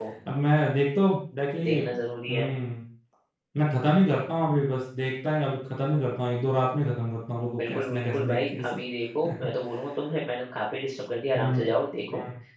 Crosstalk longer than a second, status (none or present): present